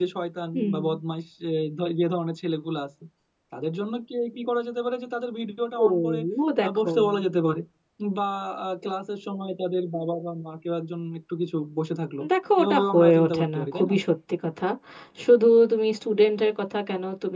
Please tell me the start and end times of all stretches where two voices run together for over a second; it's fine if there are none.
12.6-13.9

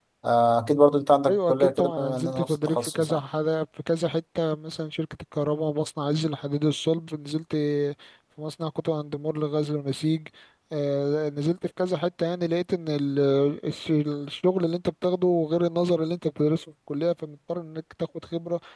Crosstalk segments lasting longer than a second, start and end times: 1.3-3.2

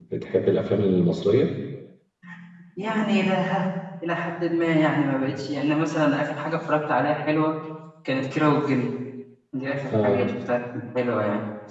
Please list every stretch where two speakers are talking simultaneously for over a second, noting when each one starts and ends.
none

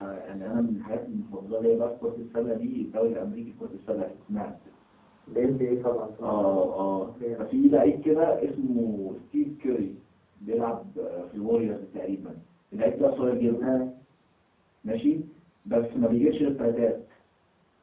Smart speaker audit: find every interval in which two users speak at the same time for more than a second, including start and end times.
none

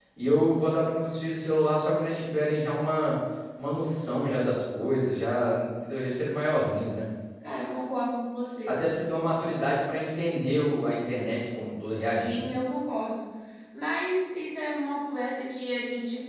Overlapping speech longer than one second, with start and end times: none

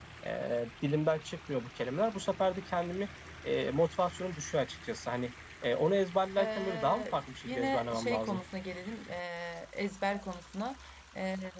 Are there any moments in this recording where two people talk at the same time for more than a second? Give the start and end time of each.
6.4-8.4

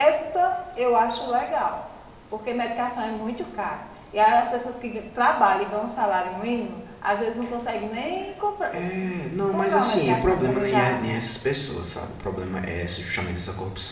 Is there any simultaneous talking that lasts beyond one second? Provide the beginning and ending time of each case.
9.5-11.0

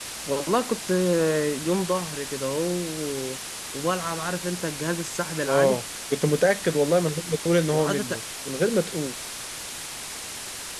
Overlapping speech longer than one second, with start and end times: none

